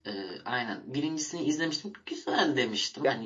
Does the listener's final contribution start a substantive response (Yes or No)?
No